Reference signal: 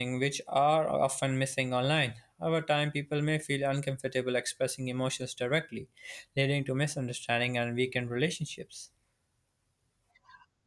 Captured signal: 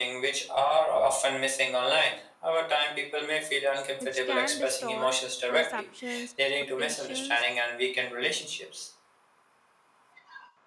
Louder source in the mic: echo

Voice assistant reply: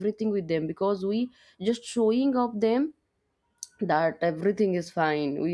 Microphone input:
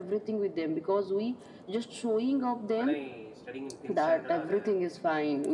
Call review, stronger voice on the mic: echo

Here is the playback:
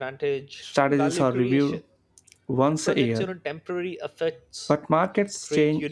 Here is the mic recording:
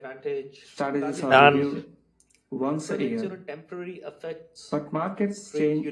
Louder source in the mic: user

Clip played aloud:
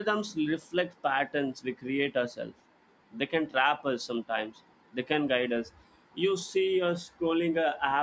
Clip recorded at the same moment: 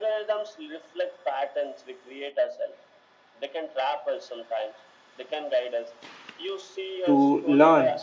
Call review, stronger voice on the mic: user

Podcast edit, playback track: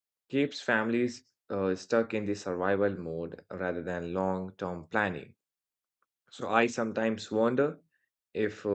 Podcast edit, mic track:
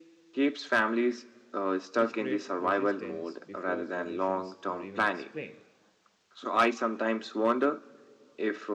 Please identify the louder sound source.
echo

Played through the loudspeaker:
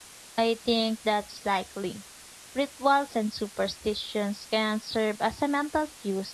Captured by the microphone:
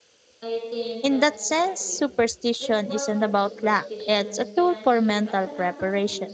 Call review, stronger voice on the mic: user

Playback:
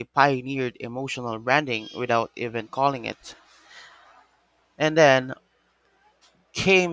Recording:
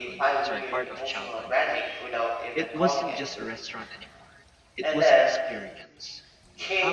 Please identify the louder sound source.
echo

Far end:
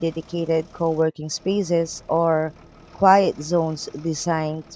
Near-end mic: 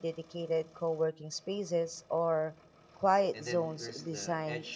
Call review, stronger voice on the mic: echo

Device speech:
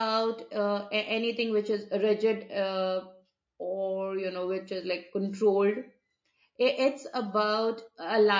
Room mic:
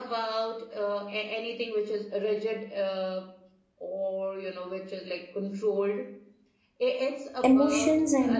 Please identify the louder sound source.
user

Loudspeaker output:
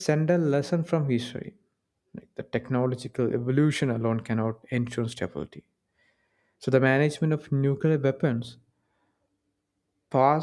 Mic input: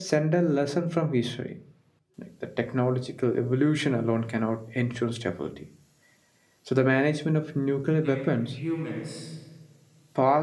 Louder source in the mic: echo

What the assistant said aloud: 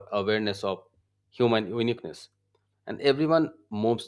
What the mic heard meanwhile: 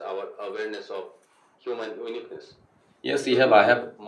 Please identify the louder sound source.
user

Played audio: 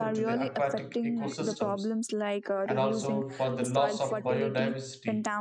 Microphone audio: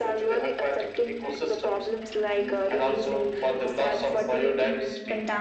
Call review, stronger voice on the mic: echo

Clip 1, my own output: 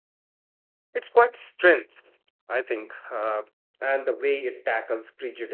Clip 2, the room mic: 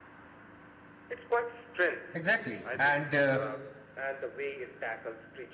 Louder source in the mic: user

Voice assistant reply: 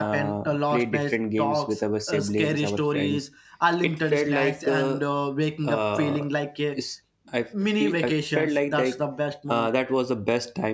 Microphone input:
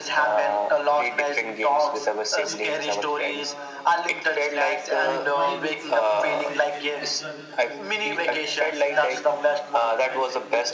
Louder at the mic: echo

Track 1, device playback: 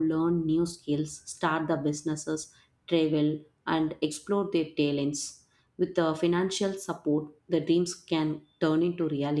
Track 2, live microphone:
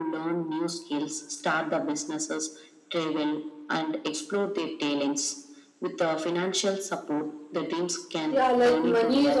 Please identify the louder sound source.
user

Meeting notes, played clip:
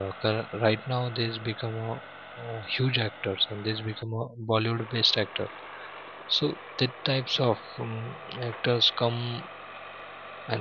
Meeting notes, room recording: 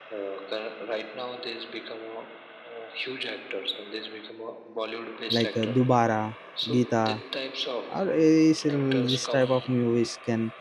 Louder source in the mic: user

